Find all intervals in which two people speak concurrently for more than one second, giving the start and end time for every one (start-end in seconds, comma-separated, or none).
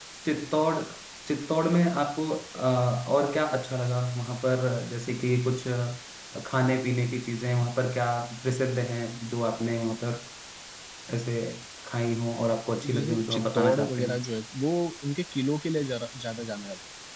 12.9-14.2